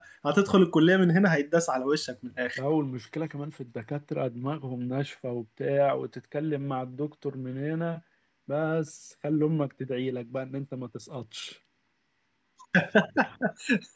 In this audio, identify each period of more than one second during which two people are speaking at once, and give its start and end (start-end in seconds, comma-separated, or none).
none